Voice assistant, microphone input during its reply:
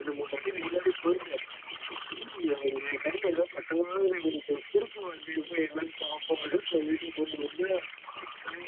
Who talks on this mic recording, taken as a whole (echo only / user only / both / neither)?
echo only